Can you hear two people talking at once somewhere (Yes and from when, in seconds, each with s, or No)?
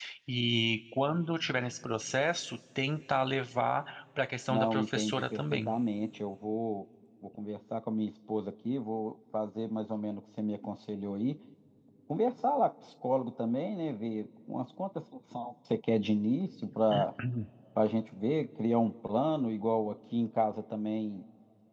Yes, from 4.5 s